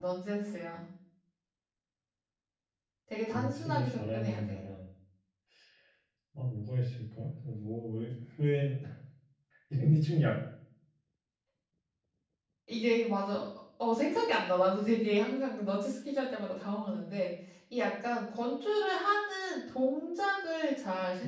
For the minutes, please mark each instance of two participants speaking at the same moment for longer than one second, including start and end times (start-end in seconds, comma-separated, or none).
3.3-4.6